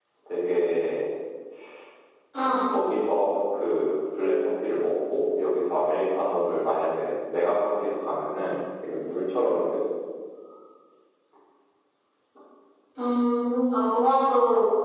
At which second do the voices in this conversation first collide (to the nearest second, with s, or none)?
none